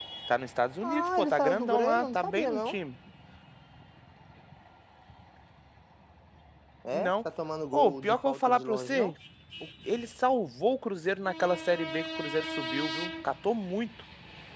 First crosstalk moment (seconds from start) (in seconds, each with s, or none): 0.8 s